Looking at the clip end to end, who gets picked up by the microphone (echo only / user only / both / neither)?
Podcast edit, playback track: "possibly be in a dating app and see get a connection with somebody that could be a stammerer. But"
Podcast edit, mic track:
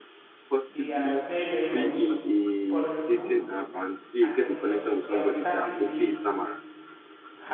both